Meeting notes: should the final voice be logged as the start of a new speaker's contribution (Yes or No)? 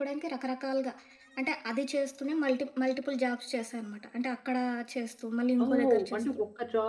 Yes